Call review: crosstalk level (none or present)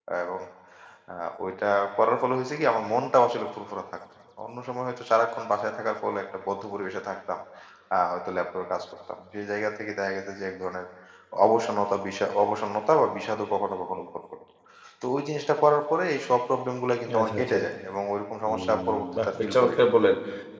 present